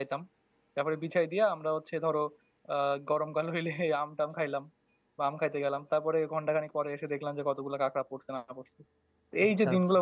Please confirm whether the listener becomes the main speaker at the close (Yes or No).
No